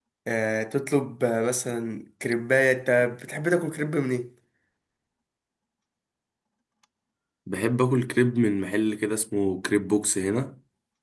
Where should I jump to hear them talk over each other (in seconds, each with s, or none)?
none